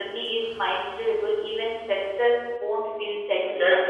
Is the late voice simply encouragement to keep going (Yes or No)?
No